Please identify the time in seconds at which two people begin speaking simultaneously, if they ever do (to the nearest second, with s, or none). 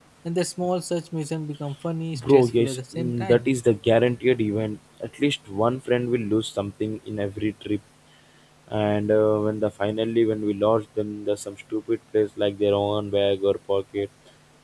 2 s